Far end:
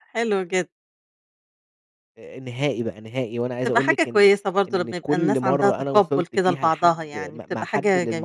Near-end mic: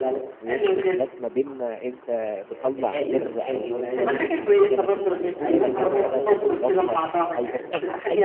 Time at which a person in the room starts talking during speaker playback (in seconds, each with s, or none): 0.3 s